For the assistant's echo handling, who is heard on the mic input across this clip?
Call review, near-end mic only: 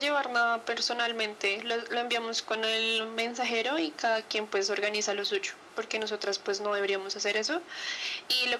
echo only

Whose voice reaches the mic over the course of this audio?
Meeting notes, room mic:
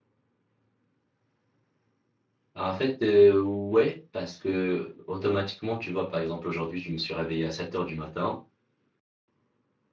user only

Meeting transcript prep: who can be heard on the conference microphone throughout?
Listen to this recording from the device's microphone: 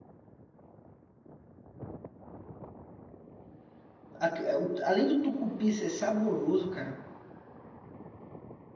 user only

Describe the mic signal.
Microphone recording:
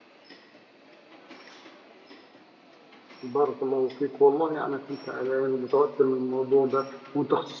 user only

